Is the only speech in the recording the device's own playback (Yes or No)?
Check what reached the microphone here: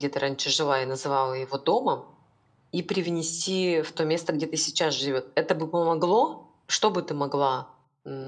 No